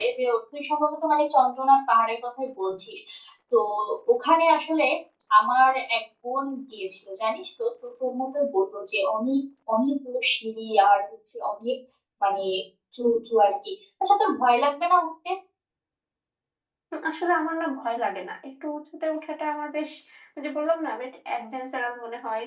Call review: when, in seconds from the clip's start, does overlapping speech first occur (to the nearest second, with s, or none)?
none